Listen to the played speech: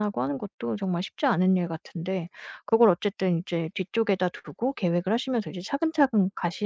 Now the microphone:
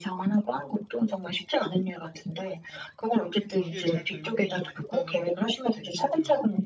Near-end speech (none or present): present